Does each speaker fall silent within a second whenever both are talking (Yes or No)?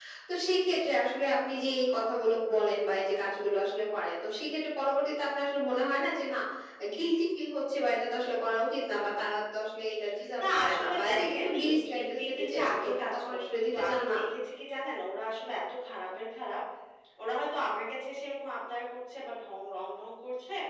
No